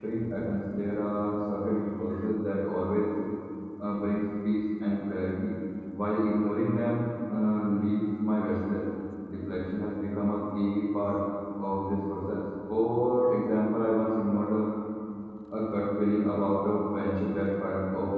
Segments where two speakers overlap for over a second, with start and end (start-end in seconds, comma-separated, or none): none